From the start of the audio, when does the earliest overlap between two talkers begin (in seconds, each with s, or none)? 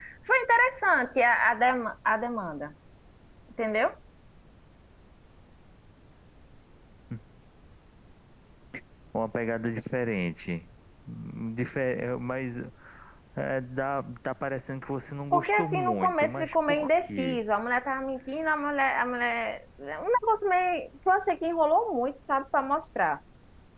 15.3 s